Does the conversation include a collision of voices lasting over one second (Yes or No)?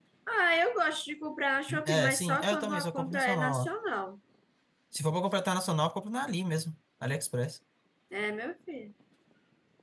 Yes